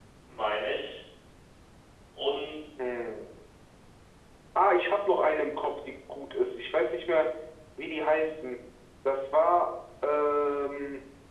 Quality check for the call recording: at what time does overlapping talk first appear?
none

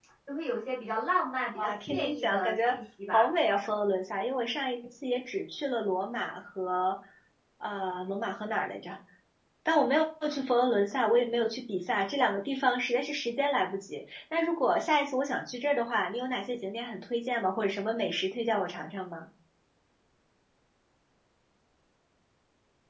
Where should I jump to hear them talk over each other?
1.6 s

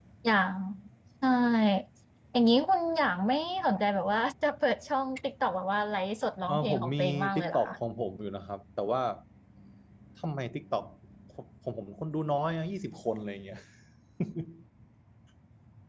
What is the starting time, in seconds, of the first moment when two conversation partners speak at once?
6.5 s

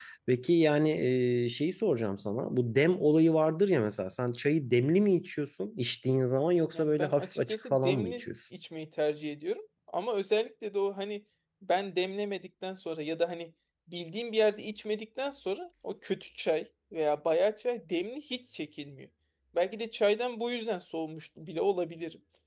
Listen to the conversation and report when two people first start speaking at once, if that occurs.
6.7 s

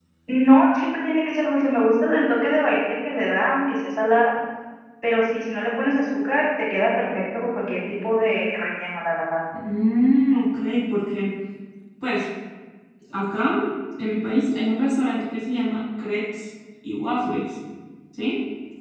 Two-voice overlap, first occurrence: none

